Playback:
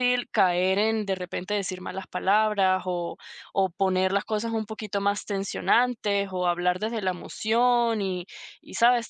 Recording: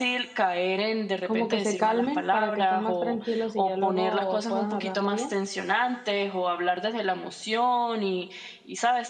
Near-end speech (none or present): present